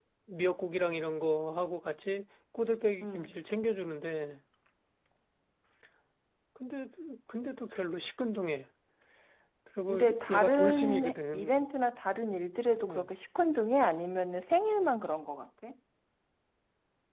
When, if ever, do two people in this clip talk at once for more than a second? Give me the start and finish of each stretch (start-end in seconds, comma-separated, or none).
9.9-11.7